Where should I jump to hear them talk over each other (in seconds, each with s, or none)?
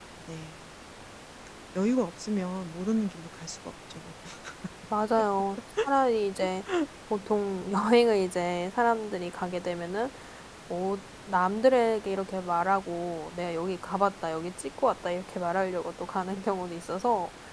none